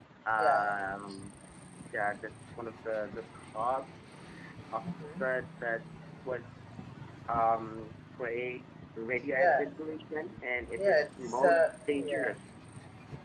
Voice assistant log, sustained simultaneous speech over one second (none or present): present